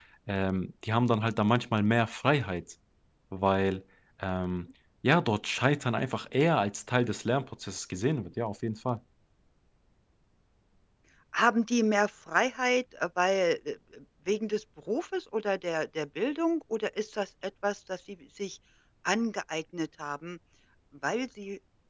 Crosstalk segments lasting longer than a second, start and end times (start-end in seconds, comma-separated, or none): none